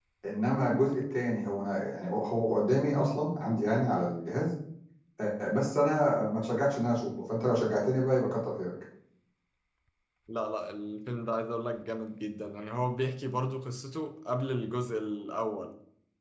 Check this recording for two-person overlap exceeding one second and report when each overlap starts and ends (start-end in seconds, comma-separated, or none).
none